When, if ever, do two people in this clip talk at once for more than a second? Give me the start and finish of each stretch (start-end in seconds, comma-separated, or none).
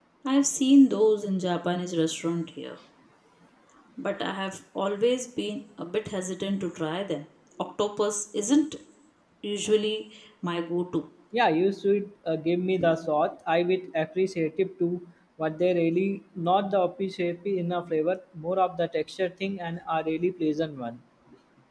none